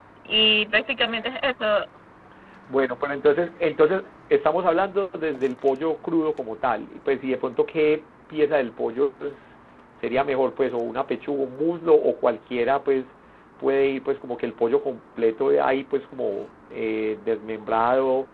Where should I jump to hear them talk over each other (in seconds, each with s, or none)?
none